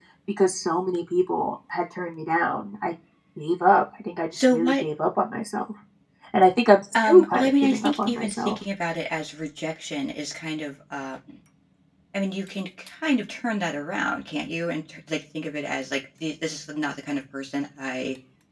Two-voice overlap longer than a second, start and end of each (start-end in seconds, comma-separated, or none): 7.0-8.6